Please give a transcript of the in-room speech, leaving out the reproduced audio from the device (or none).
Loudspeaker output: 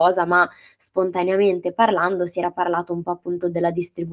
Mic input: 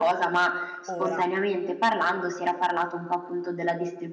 Ora